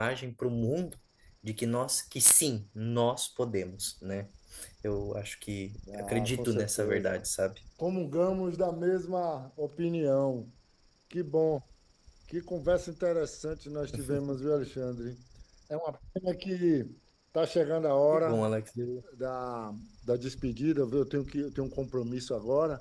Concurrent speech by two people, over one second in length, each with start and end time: 5.9-7.2

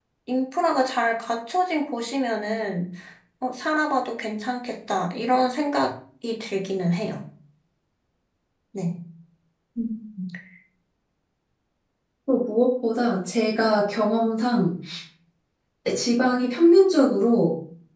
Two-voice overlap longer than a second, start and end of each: none

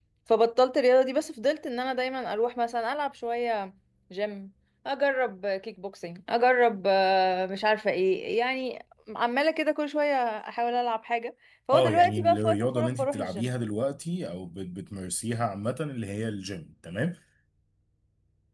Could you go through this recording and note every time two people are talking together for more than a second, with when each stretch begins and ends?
11.7-13.5

